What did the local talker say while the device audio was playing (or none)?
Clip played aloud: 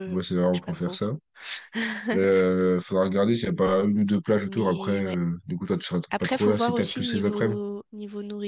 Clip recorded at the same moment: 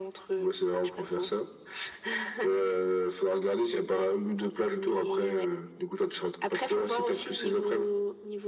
none